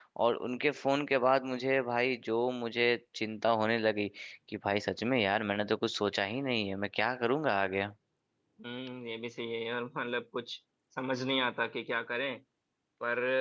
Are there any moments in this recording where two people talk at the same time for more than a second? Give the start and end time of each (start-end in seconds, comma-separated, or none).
none